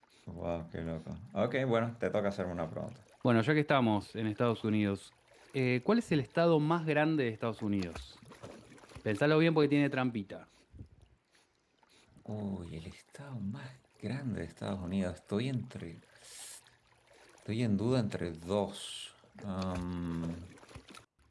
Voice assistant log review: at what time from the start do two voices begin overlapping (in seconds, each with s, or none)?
none